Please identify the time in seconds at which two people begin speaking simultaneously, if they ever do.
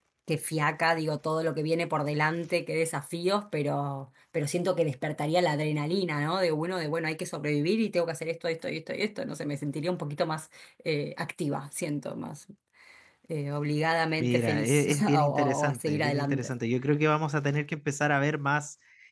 14.2 s

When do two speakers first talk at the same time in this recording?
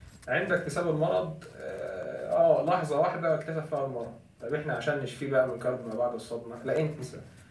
none

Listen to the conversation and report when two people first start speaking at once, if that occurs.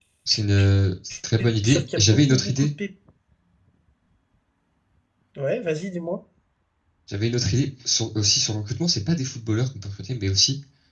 1.4 s

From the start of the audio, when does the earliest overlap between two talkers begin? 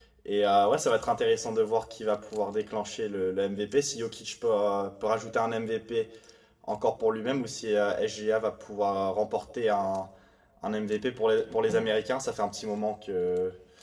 none

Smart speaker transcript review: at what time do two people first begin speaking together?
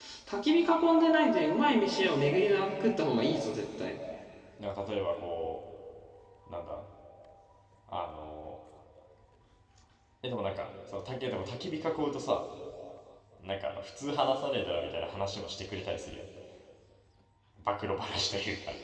none

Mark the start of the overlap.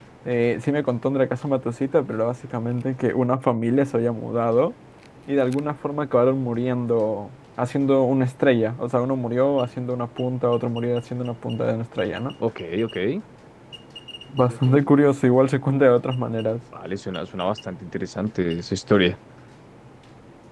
none

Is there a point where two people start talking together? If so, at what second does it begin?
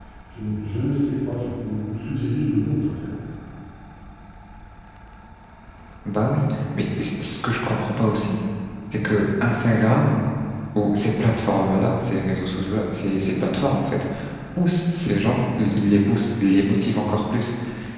none

